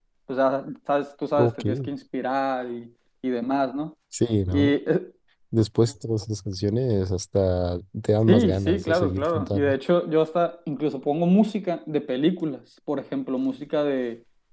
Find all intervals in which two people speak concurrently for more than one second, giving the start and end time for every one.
8.3-9.8

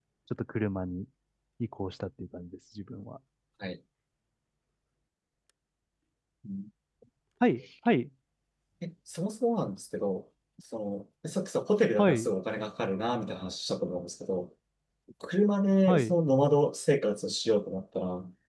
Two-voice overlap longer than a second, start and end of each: none

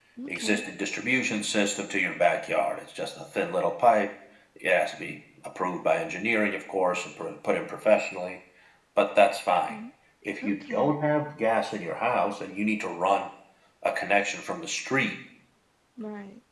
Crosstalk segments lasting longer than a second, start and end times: none

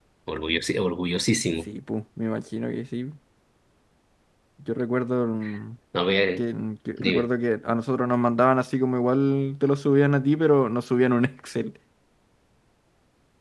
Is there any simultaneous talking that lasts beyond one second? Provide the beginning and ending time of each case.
none

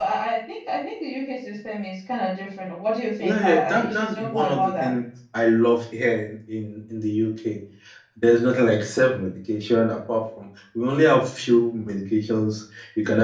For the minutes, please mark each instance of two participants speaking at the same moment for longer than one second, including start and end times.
3.2-4.9

